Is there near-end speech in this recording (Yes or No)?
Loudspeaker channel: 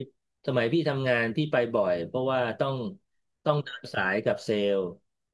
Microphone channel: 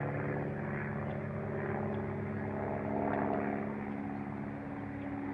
No